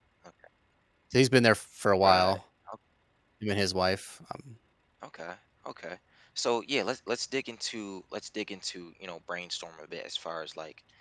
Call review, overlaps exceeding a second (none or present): none